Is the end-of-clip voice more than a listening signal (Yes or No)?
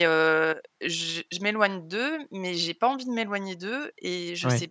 No